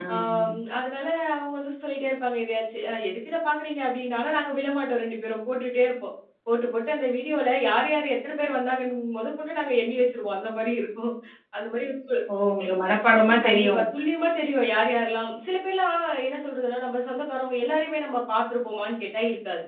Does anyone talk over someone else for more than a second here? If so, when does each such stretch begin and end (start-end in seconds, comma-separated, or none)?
none